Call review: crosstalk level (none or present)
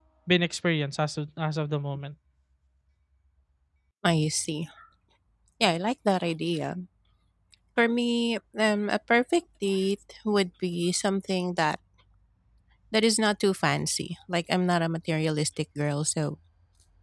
none